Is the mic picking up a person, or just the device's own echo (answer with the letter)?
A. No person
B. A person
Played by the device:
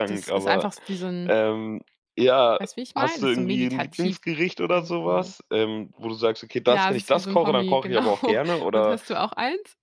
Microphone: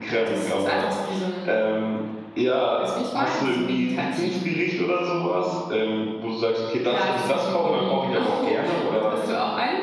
A